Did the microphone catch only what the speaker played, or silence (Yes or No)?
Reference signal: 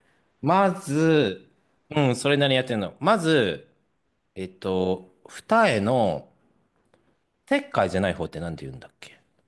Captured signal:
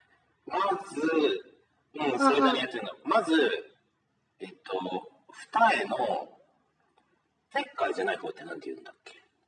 No